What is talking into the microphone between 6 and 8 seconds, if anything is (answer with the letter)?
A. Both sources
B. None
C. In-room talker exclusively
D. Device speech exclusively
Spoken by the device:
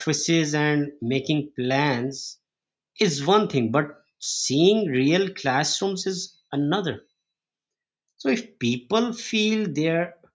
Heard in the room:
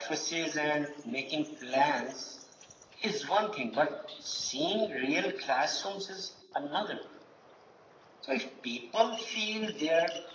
D